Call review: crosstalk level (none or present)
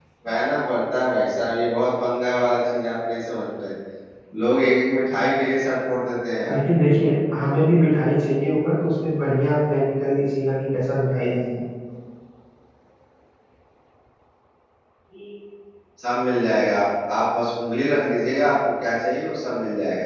none